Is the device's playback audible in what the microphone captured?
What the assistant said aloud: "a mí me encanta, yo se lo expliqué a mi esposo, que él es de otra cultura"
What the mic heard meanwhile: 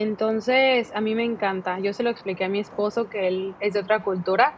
Yes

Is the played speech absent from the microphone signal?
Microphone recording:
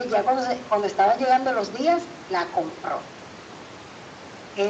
No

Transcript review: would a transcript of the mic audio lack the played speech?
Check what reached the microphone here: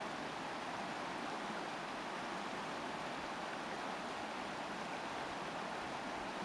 Yes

